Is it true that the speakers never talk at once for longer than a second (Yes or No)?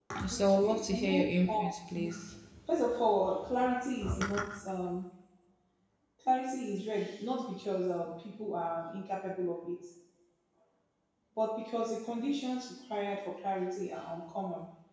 No